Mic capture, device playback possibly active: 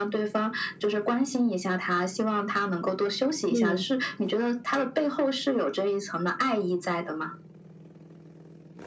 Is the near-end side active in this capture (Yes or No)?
Yes